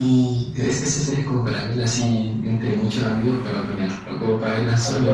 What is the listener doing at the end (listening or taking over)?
taking over